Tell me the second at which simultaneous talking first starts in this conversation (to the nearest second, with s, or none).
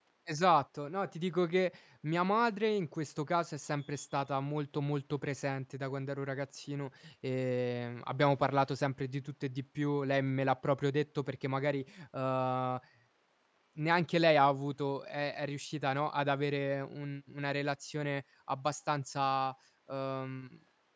none